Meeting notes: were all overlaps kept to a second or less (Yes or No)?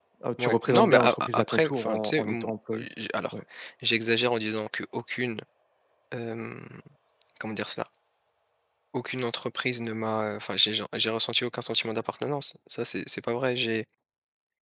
No